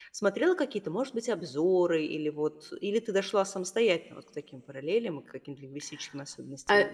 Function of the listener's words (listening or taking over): taking over